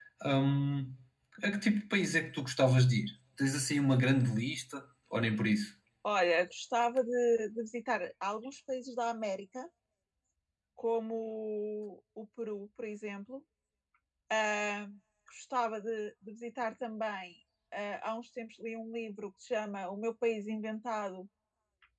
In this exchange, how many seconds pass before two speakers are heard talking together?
none

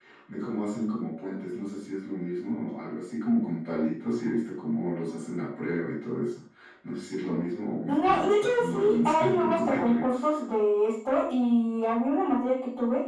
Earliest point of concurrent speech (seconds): 8 s

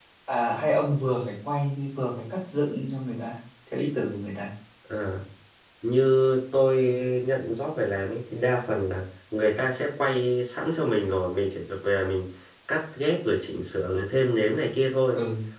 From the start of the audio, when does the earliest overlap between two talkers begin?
none

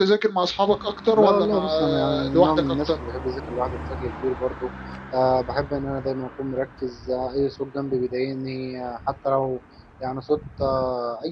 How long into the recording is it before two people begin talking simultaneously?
1 s

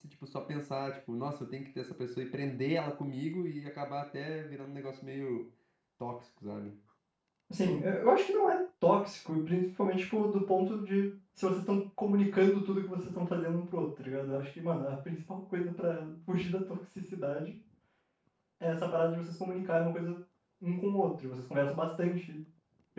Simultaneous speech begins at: none

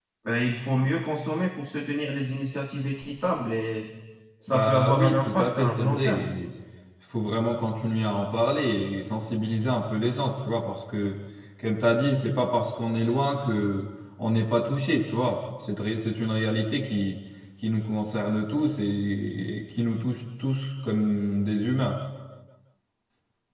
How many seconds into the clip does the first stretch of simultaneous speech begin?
5 s

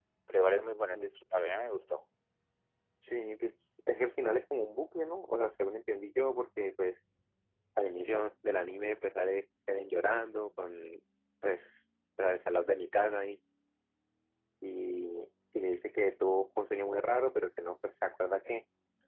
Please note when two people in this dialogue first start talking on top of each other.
none

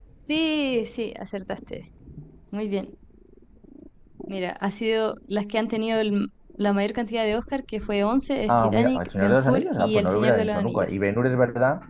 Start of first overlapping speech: 8 s

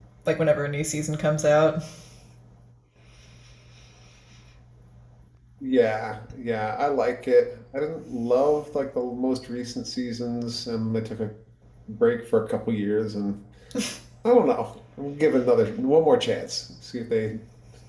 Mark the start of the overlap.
none

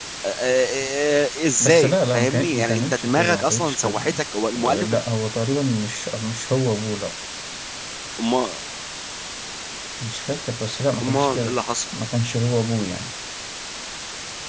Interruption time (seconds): 2 s

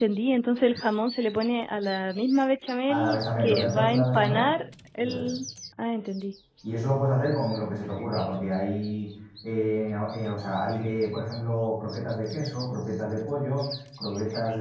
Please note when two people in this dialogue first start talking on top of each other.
3 s

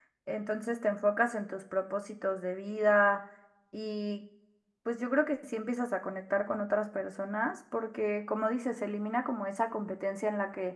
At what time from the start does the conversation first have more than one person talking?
none

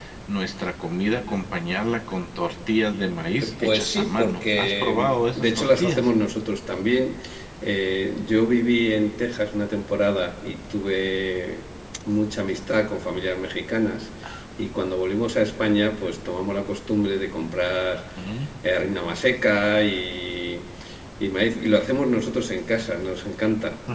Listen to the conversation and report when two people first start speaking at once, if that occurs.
3 s

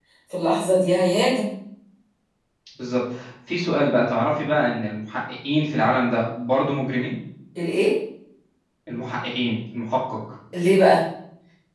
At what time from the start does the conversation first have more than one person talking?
none

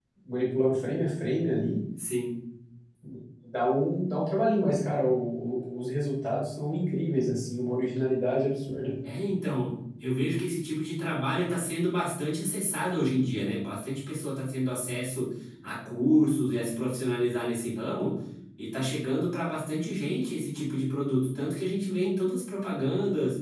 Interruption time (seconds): none

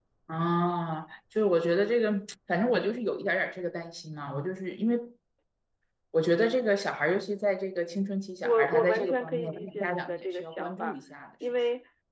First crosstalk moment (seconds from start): 8 s

